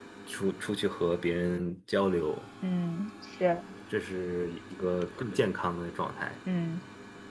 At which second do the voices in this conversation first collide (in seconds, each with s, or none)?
none